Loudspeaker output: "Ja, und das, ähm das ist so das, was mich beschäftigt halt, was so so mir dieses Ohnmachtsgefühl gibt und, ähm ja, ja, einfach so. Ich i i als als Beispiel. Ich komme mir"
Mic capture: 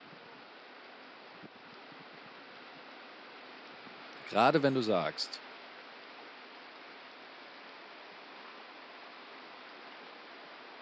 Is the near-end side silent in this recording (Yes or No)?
No